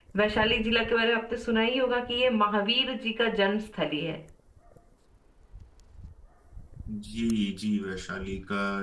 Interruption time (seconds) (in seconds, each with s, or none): none